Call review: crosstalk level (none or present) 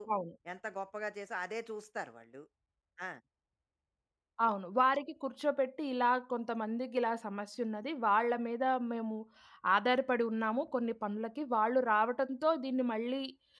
none